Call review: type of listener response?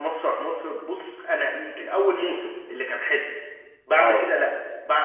listening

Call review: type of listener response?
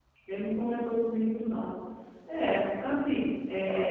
taking over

